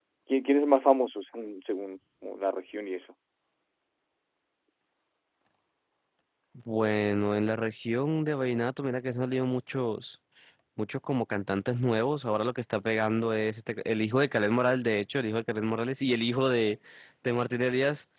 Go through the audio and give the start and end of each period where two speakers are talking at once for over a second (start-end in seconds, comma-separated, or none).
none